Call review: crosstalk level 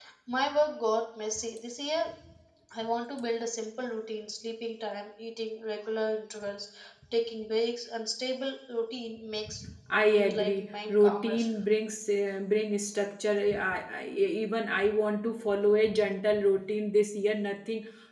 present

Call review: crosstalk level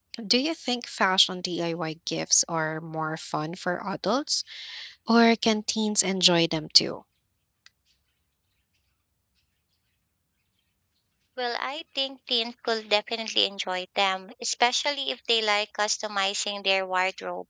none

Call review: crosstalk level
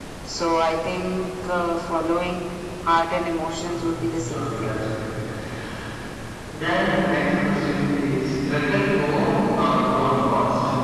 present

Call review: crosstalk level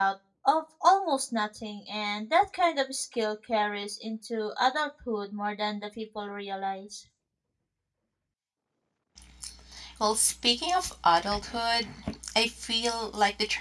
none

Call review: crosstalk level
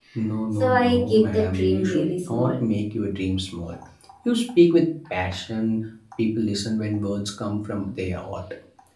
present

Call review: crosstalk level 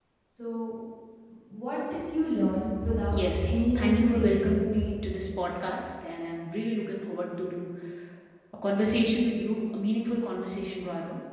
present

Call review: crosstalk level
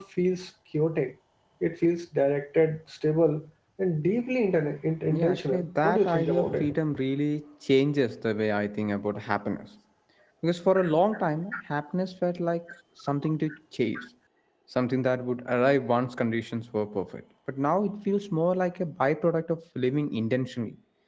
present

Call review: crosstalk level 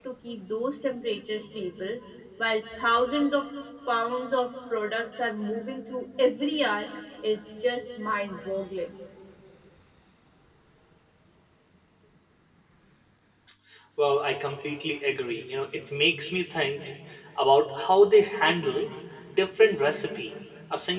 none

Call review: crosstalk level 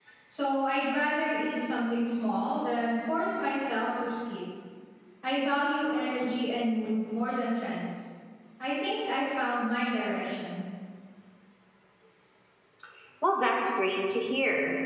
none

